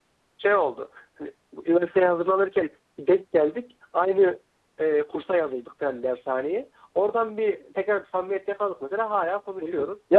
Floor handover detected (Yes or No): Yes